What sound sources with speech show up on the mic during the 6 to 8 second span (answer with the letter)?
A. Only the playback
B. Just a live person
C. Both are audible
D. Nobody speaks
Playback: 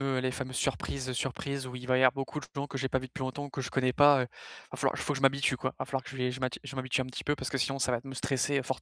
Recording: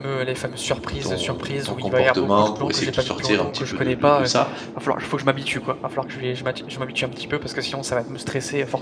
A